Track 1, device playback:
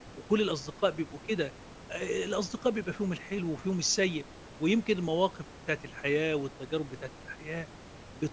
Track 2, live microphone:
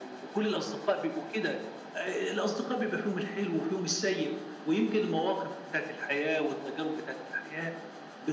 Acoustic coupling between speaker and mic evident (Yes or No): Yes